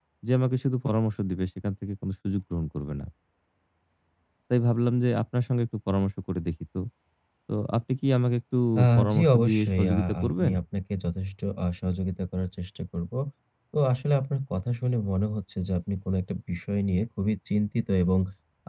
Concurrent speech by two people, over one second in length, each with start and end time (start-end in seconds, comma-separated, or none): 9.0-10.5